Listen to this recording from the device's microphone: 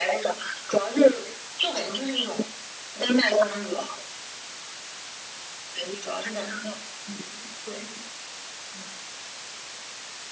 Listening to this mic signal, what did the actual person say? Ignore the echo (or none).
none